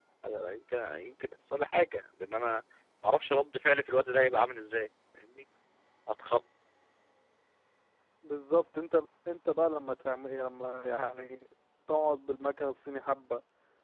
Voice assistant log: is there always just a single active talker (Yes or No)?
Yes